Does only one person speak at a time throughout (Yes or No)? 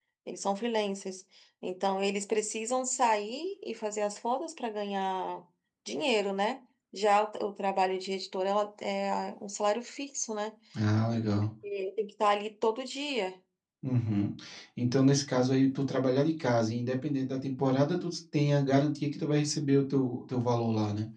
Yes